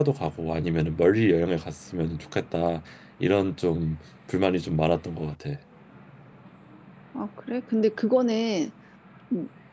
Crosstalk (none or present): none